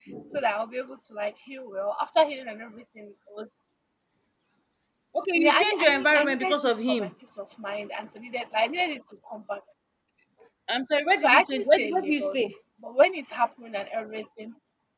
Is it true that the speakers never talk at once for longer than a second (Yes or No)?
No